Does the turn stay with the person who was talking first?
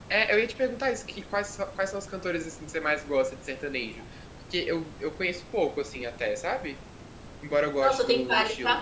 No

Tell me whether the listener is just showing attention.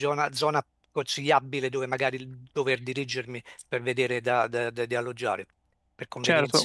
No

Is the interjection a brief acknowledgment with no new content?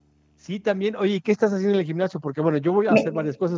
Yes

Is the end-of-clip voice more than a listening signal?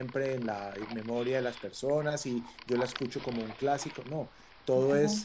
No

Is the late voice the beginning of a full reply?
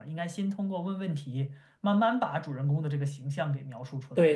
Yes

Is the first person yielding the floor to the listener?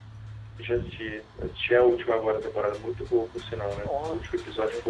Yes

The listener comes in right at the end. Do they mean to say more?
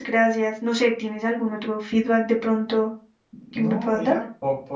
Yes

